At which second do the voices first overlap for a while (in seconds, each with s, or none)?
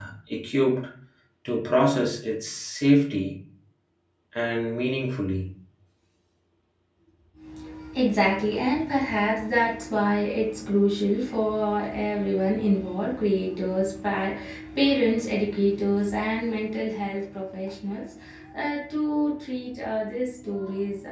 none